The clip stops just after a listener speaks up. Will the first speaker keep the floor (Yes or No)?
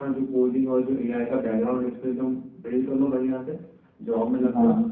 Yes